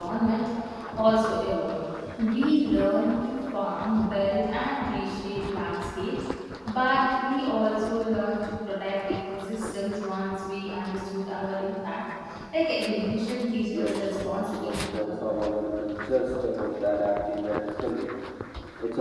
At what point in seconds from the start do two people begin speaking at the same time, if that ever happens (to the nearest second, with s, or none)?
14 s